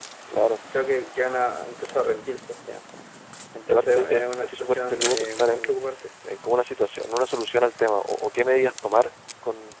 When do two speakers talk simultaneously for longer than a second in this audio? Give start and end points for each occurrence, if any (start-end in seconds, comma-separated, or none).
3.7-5.7